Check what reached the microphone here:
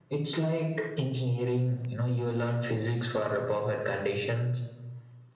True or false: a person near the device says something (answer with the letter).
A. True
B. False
B